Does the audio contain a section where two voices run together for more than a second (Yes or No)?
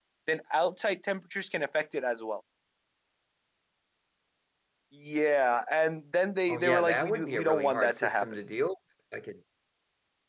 Yes